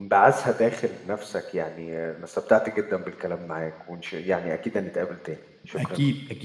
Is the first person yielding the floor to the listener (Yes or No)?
Yes